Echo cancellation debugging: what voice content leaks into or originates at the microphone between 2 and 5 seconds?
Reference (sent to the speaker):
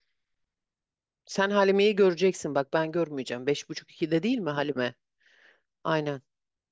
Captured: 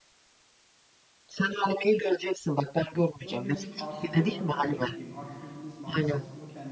both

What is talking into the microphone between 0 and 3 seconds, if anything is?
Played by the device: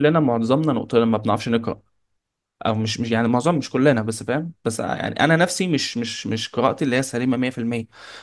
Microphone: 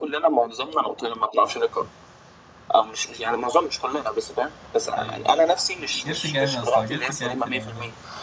echo only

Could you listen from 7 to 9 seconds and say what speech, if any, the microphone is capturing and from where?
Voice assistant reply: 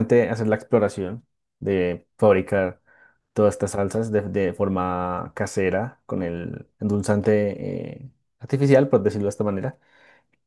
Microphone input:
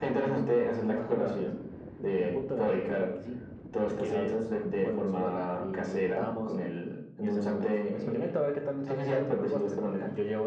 both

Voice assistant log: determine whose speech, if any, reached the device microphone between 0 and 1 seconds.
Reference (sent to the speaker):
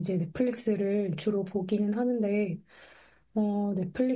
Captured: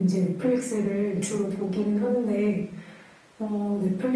echo only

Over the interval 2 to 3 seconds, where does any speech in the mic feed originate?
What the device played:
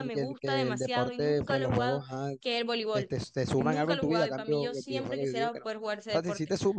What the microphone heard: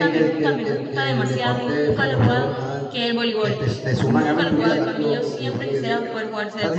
echo only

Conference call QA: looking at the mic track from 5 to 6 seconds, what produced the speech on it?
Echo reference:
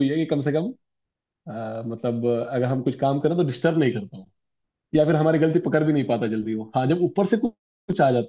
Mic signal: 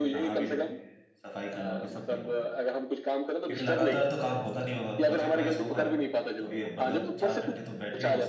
both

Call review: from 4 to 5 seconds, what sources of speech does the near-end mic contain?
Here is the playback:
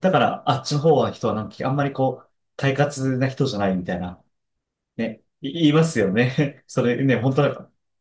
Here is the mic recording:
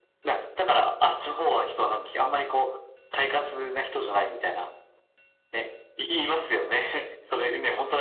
echo only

